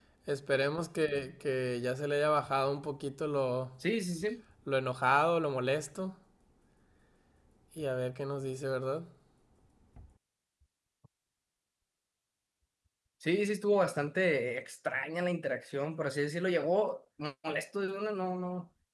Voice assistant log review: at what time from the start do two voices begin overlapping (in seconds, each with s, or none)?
none